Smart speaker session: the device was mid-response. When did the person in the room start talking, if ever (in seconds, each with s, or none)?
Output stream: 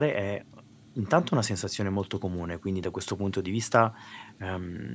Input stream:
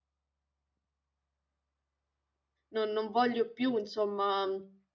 2.7 s